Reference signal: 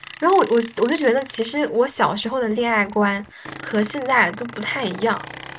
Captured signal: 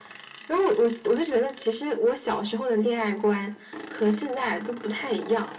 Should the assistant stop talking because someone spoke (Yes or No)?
No